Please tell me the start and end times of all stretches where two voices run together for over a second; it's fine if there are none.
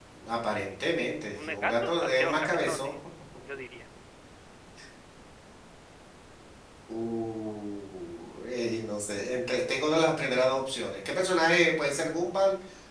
1.4-2.9

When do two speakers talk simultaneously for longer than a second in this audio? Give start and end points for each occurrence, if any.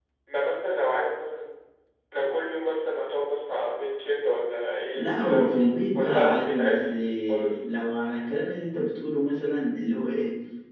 4.9-7.6

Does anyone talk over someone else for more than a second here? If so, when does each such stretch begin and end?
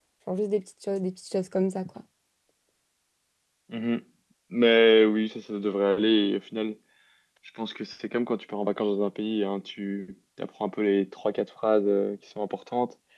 none

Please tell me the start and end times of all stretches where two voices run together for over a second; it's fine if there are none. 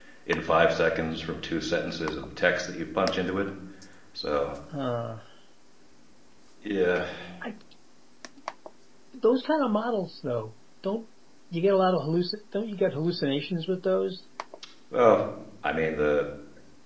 none

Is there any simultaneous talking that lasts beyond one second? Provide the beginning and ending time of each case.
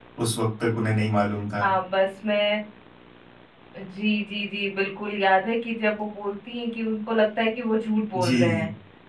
none

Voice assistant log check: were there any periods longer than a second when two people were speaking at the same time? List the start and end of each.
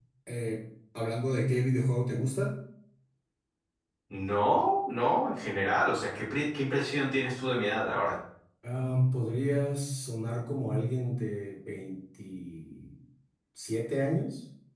none

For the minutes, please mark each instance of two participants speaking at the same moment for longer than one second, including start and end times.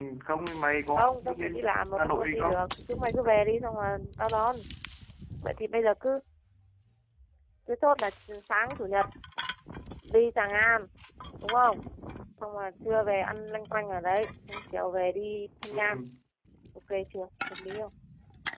0.9-2.7

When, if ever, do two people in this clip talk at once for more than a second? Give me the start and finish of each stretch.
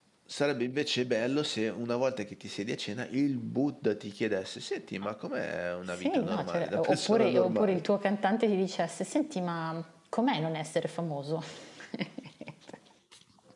5.9-7.8

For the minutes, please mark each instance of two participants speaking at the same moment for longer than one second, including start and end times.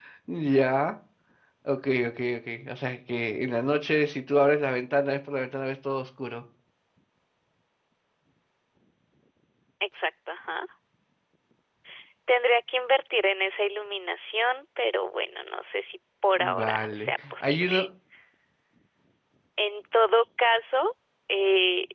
16.4-17.9

